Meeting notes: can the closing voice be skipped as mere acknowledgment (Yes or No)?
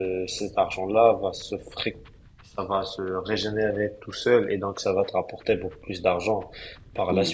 No